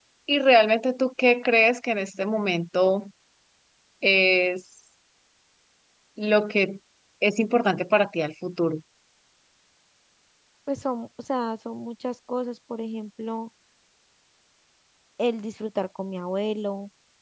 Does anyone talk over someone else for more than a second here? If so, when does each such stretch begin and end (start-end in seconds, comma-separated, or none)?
none